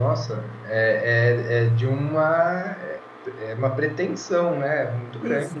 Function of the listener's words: taking over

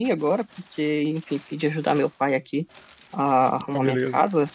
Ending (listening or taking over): listening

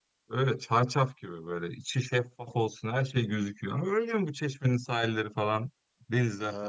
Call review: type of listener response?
taking over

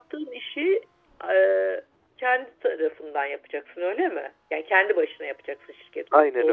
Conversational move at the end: taking over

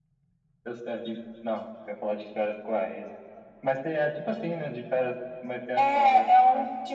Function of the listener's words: taking over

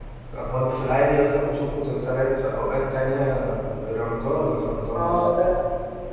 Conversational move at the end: taking over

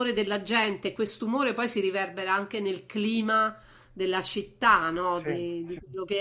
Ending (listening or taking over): listening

